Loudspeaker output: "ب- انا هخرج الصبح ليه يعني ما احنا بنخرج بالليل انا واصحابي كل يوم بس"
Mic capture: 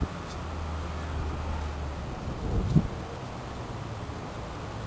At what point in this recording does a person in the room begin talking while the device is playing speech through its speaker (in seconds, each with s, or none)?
none